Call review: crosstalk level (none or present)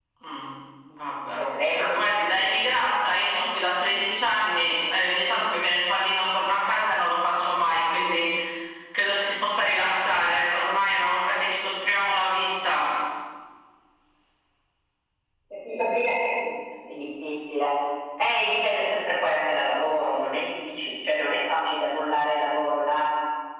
present